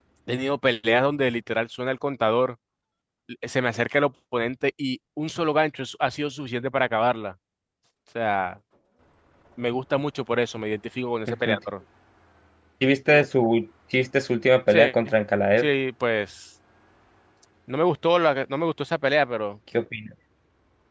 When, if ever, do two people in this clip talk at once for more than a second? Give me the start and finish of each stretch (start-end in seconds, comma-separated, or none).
none